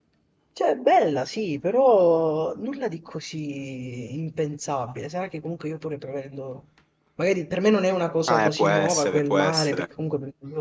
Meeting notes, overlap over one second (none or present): present